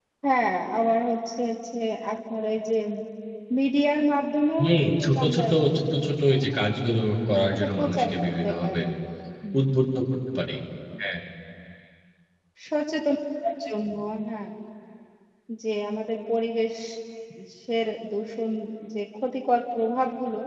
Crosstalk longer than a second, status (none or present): present